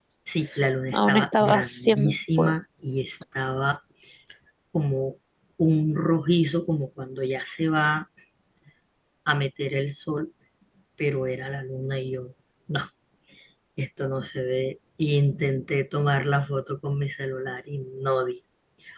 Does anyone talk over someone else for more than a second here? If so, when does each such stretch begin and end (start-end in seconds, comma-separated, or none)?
0.9-2.5